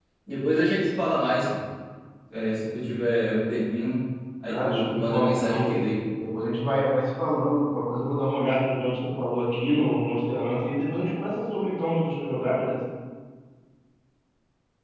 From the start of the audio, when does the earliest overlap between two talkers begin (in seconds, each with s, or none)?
4.5 s